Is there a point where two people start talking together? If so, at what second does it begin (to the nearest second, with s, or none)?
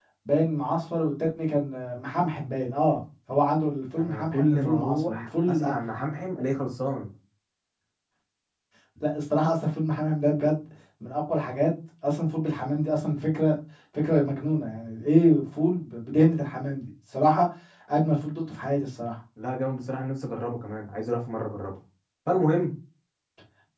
4 s